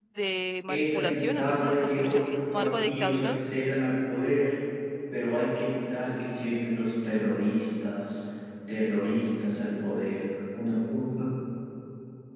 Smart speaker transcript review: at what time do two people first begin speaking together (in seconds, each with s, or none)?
0.7 s